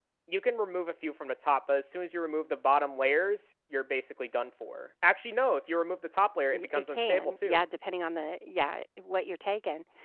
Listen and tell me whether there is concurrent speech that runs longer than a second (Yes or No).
Yes